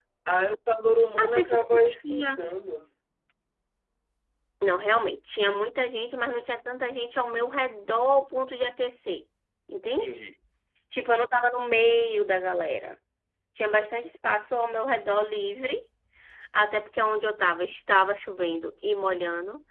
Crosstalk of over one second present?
Yes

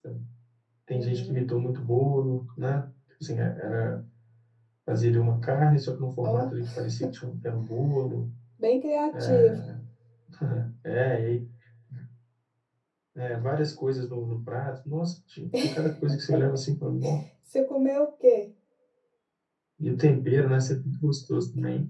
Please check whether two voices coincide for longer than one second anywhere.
No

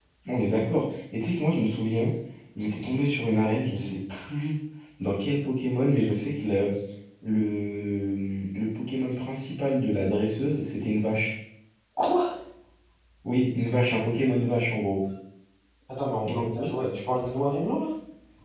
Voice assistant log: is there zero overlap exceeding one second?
Yes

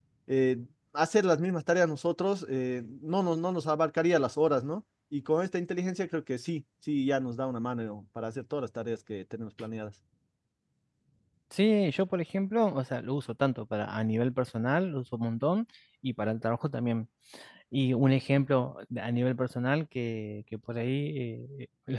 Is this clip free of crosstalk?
Yes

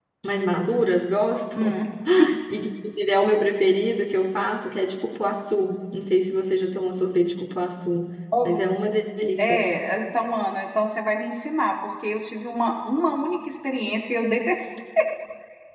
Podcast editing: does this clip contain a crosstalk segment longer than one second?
No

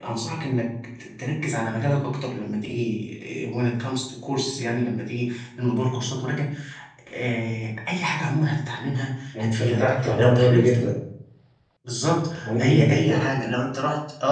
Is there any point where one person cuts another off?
Yes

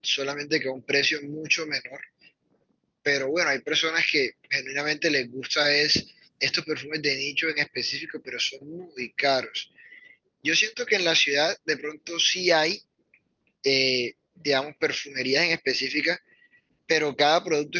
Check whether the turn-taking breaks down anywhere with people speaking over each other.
No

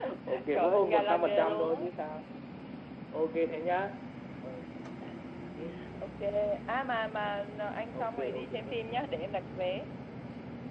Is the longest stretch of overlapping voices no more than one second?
No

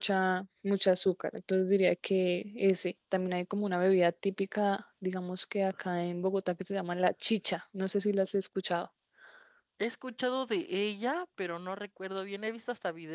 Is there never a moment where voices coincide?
Yes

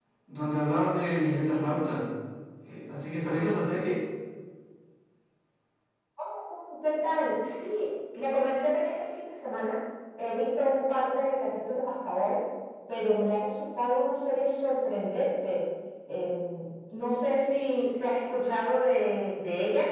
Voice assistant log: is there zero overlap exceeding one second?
Yes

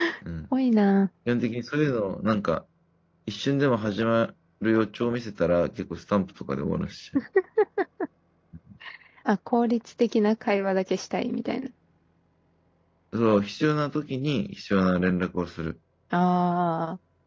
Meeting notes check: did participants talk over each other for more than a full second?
No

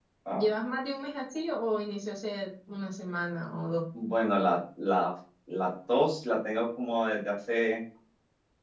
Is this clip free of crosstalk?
Yes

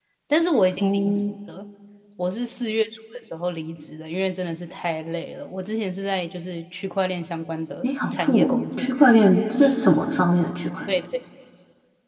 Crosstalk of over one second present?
Yes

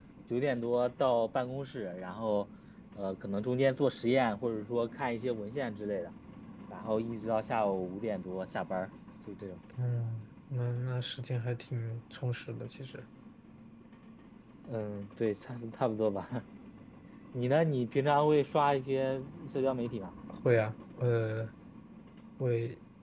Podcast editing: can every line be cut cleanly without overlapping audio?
Yes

